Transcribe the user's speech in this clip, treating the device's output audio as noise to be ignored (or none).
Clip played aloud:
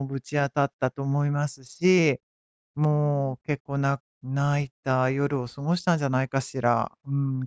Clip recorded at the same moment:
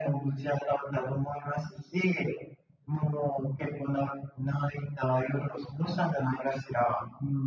none